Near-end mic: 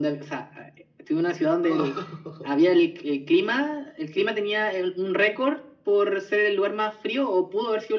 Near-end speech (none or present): present